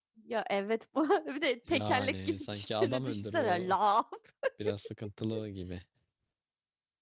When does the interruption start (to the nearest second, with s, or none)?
2 s